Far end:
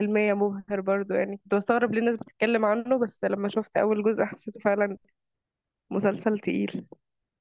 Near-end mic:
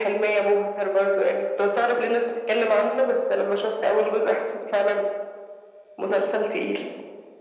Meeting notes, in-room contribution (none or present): none